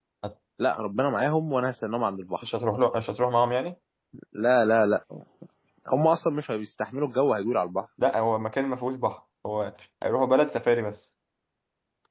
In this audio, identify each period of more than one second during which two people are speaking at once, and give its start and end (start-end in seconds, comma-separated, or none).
none